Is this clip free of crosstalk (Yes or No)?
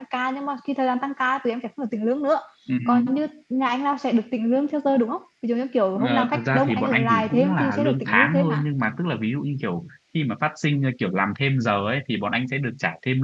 No